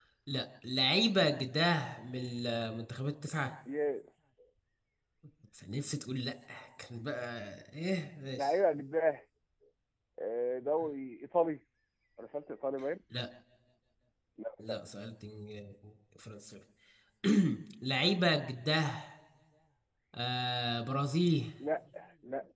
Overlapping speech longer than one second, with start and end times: none

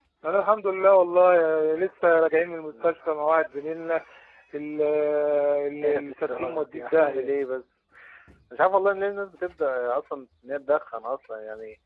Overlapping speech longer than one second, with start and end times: 5.8-7.3

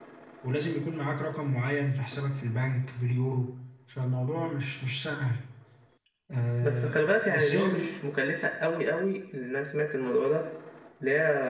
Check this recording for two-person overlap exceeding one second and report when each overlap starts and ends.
6.6-7.9

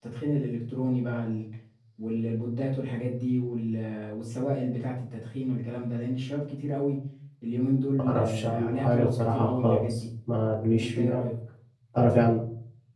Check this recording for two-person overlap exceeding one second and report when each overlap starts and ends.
8.1-9.8

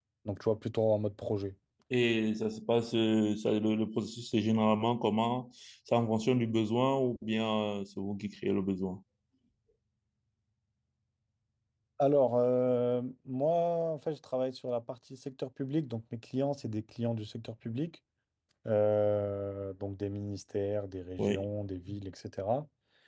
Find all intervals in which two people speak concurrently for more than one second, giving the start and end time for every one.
none

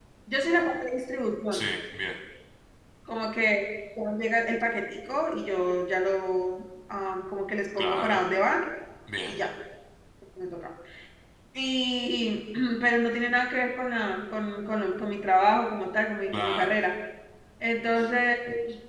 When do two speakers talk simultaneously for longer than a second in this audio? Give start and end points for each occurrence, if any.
none

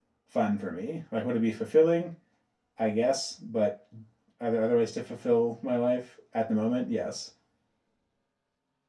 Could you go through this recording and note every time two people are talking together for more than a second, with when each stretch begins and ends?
none

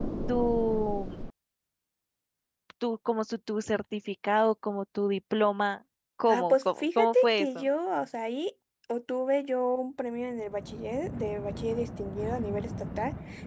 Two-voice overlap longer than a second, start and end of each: 6.3-7.7

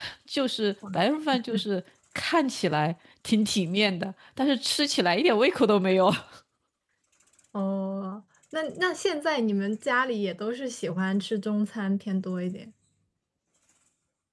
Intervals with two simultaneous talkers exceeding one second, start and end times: none

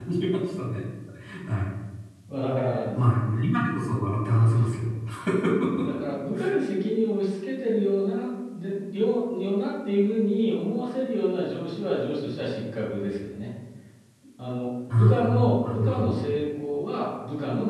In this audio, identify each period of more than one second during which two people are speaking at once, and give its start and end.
14.9-16.1

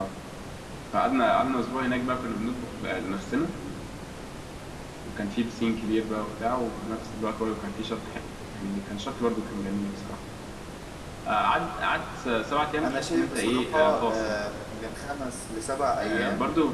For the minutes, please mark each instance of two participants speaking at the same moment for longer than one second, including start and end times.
12.8-14.4

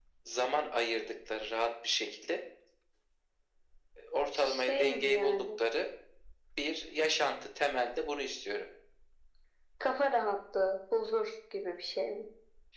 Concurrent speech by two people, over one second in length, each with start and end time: 4.3-5.6

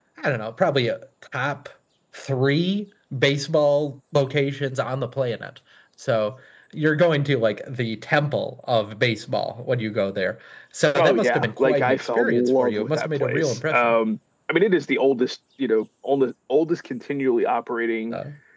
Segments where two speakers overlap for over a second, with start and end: 11.0-13.9

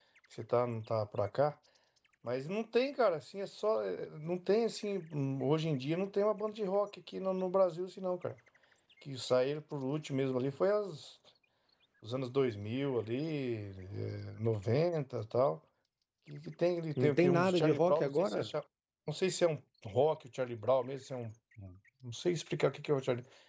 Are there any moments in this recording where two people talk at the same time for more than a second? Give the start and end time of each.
17.0-18.5

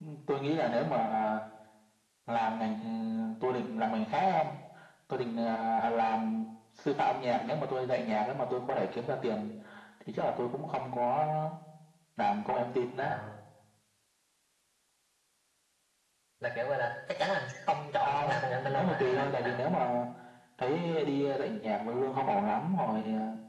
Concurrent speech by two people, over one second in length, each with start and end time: 18.0-19.6

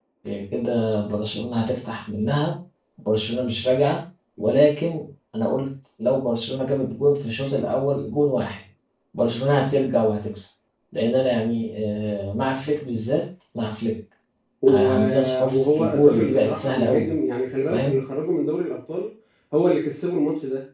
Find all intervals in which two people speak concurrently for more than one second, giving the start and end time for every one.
14.7-17.1

